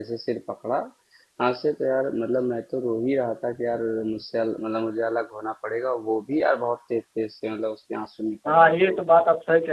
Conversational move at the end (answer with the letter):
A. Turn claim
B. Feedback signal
A